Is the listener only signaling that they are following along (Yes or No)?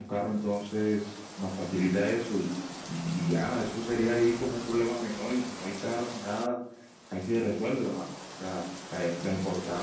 Yes